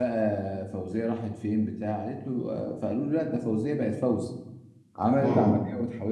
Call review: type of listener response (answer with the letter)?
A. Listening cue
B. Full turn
A